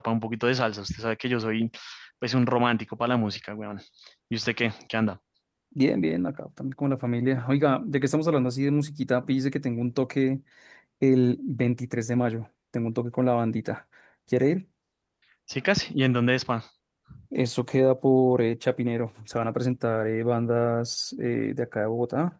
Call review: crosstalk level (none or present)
none